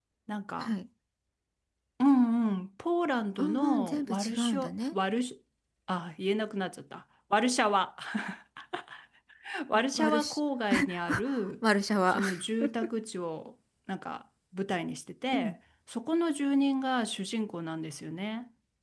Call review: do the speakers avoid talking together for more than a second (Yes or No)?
No